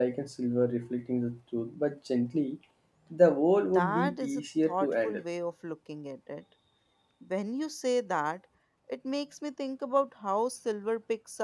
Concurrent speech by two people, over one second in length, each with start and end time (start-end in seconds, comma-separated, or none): 3.7-5.2